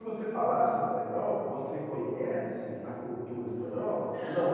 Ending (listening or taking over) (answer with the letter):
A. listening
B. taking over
A